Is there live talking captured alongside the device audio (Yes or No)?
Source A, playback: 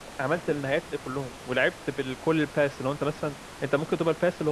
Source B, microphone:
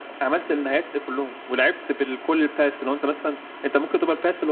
No